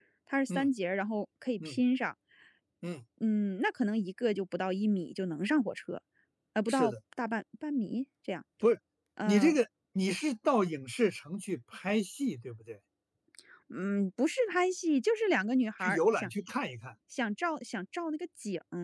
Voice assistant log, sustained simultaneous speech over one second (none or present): none